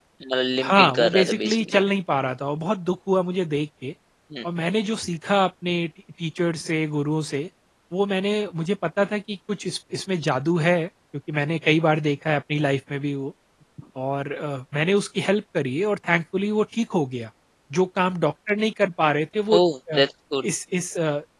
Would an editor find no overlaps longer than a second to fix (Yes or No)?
No